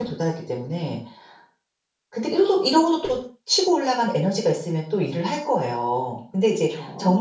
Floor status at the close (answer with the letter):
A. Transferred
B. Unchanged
B